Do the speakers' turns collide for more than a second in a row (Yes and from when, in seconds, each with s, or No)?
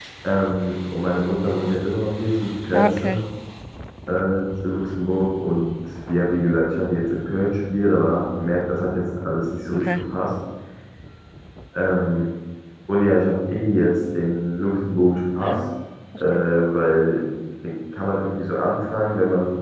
No